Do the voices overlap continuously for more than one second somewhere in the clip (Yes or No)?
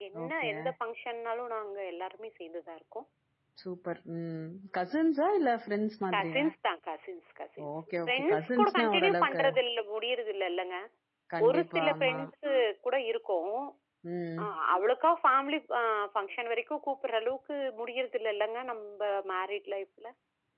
Yes